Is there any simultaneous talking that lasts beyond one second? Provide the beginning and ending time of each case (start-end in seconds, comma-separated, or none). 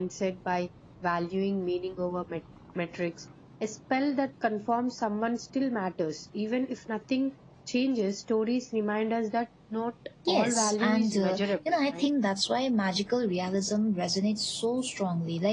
10.3-12.0